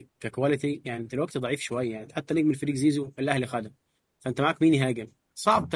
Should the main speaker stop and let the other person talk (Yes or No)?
Yes